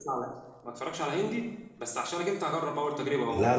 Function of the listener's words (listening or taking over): taking over